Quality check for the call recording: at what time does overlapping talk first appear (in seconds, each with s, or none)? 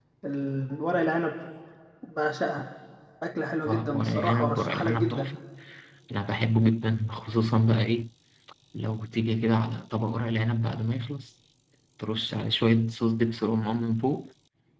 3.7 s